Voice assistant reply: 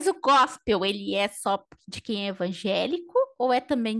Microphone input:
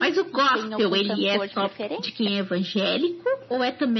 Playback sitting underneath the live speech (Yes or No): No